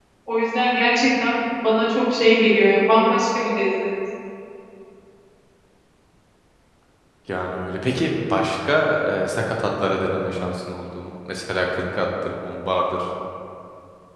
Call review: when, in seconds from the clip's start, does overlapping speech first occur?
none

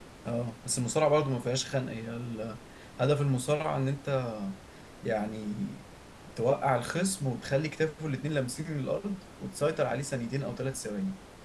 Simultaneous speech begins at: none

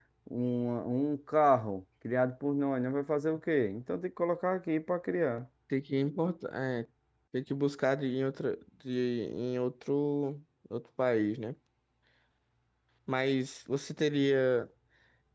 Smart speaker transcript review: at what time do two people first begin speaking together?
none

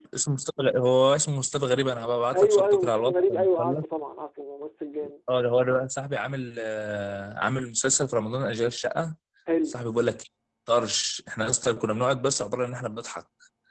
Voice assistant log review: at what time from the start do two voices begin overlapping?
2.3 s

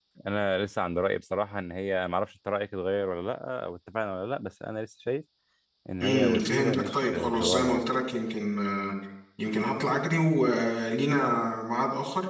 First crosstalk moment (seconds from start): 6.0 s

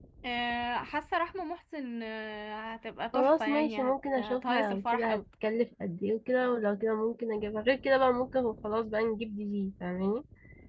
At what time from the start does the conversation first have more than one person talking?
3.1 s

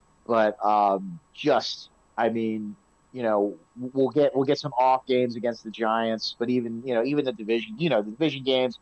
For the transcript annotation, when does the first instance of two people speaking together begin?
none

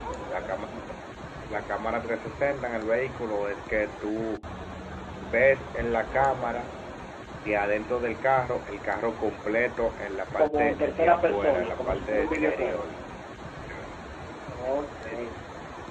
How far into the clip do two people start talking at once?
10.4 s

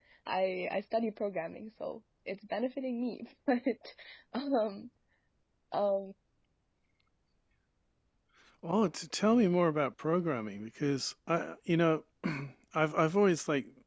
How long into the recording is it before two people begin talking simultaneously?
none

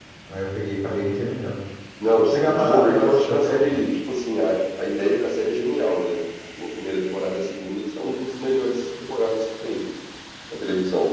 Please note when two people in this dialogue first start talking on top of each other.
2.3 s

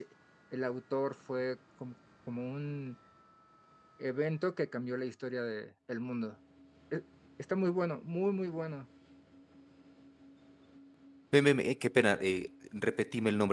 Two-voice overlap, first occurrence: none

